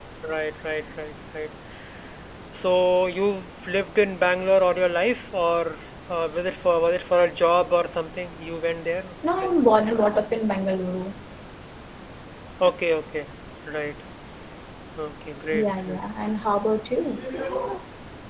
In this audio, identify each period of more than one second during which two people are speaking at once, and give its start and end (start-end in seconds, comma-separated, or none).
none